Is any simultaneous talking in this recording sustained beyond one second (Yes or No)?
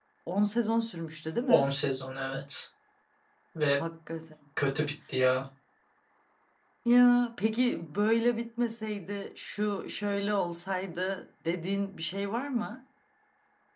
No